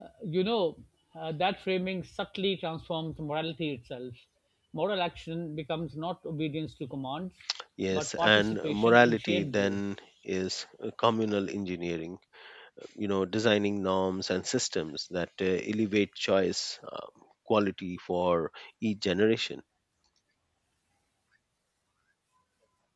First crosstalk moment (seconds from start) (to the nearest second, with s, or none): 8 s